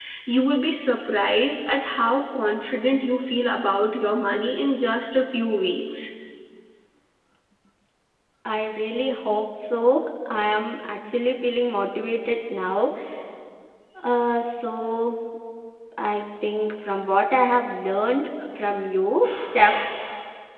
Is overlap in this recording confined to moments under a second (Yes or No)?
Yes